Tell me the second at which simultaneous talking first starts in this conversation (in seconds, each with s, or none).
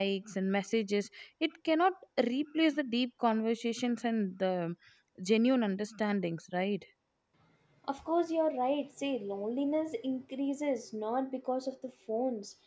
none